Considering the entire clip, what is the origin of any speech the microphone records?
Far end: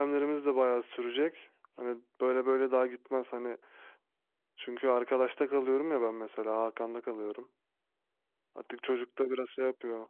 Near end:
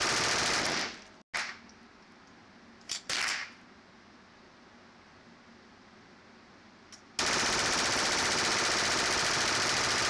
neither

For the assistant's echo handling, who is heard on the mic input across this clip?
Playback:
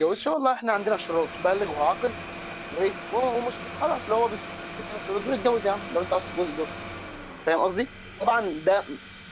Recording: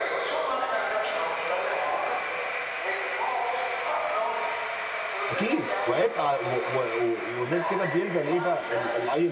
both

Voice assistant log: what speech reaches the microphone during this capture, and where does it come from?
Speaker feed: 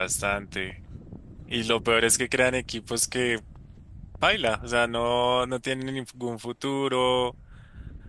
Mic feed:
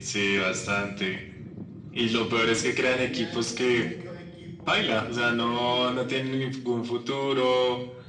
both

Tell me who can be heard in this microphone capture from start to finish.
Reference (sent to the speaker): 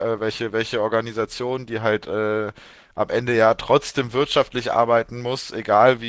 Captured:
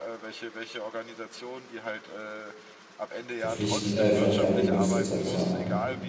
both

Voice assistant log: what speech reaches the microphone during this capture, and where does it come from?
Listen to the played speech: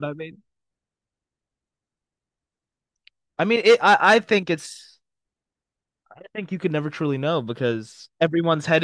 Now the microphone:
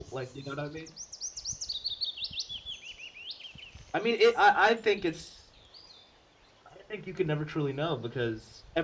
echo only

